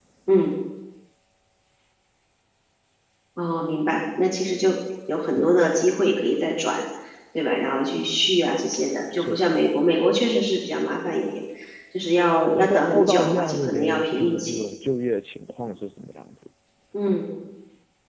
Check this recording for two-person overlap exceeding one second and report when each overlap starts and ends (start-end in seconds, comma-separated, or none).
12.6-14.6